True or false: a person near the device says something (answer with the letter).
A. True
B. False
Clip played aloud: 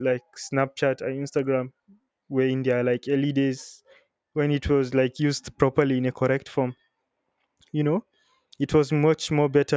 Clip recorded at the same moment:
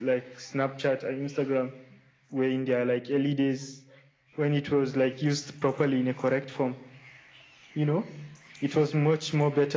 B